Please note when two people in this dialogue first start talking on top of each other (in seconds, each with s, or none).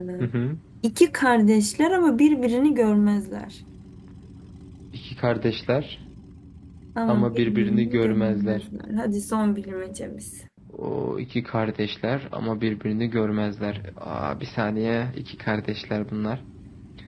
7.1 s